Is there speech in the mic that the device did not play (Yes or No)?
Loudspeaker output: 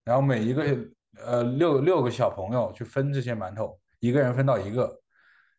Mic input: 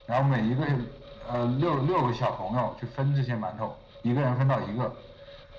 No